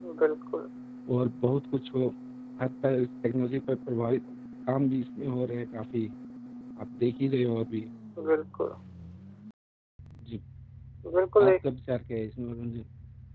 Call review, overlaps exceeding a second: none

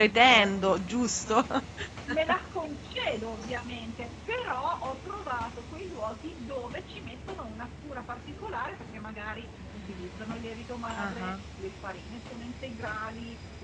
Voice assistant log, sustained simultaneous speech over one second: none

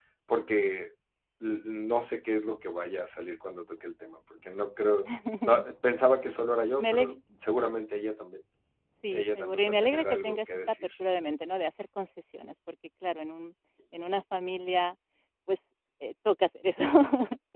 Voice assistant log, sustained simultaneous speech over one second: present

